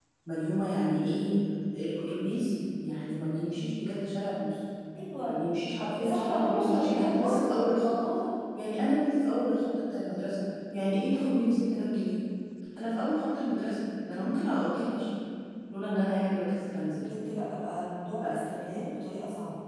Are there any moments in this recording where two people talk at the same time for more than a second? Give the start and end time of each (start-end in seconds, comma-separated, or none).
6.0-7.5